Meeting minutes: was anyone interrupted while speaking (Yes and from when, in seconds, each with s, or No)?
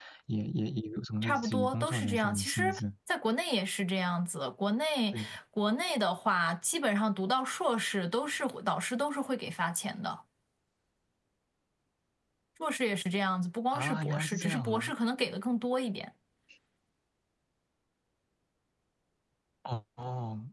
Yes, from 1.2 s